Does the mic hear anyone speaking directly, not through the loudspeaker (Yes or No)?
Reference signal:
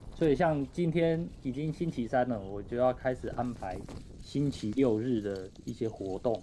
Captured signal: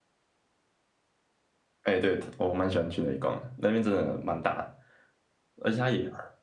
Yes